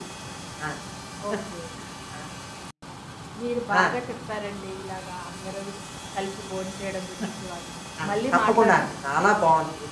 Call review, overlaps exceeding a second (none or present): present